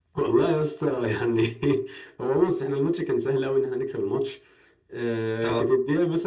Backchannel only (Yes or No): Yes